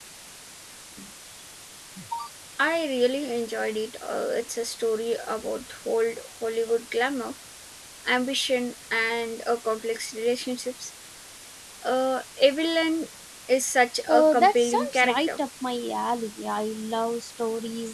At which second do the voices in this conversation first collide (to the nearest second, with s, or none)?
14 s